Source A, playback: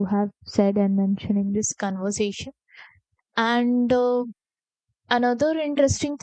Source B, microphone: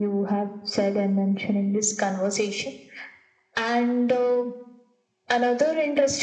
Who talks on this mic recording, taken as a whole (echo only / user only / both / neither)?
echo only